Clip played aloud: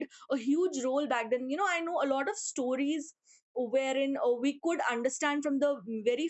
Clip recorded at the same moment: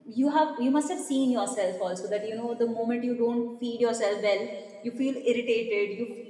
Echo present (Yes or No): No